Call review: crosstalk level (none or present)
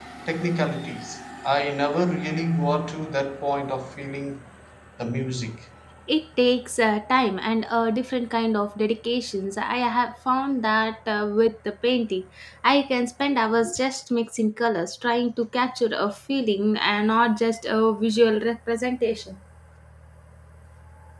none